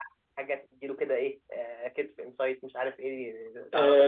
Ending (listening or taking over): taking over